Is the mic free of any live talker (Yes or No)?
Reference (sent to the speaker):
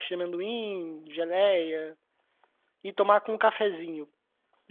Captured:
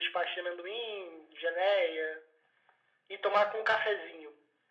Yes